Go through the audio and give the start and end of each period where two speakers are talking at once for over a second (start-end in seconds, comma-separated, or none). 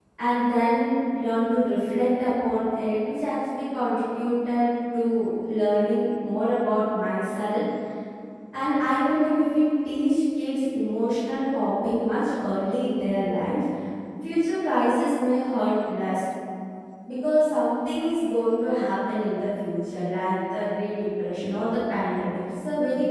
none